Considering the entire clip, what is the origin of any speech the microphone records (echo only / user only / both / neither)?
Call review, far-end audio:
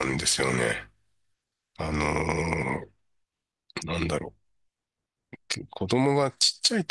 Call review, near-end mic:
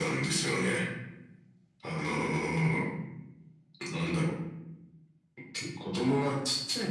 echo only